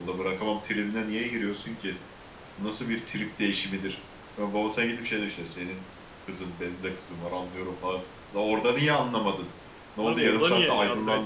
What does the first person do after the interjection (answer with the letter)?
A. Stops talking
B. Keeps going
A